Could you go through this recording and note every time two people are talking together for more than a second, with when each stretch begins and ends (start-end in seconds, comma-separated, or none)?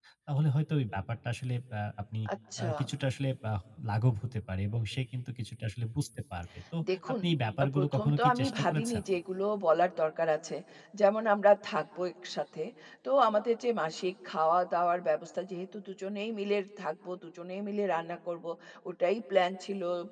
7.8-9.0